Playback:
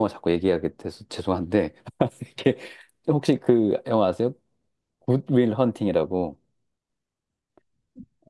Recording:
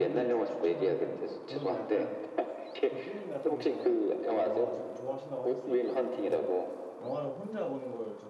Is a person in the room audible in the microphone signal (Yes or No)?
Yes